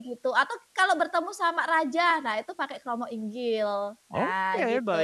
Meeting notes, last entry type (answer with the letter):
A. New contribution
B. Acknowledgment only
A